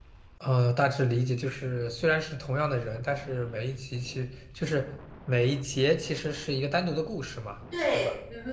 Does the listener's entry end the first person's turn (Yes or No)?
Yes